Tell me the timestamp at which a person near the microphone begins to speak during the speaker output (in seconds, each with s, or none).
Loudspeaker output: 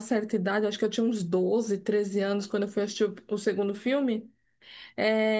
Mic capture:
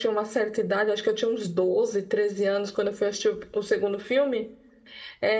none